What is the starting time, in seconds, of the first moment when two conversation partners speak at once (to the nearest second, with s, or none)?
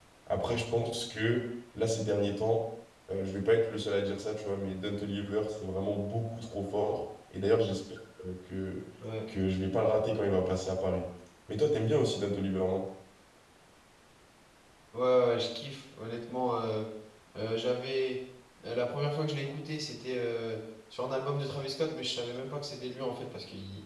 none